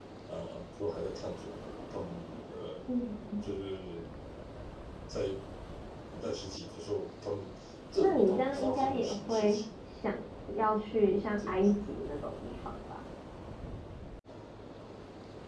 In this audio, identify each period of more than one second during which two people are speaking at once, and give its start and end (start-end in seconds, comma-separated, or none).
8.0-9.6